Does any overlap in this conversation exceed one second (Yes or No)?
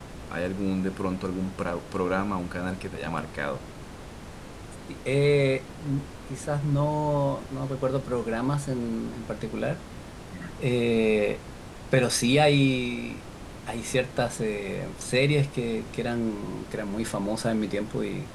No